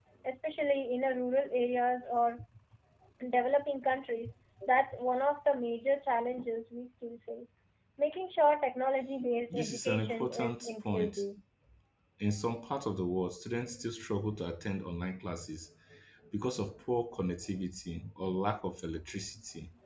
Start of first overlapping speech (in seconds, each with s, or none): 9.5 s